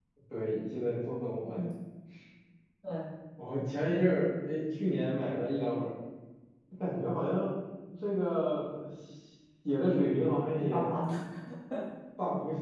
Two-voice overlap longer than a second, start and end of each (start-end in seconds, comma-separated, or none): none